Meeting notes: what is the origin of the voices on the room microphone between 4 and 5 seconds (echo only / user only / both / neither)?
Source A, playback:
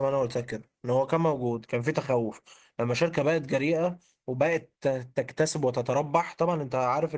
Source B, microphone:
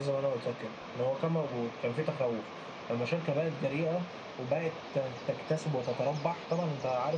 echo only